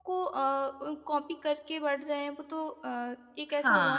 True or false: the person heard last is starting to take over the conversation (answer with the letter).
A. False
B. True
B